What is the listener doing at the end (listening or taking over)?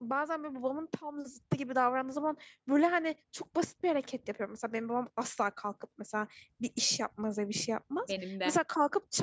listening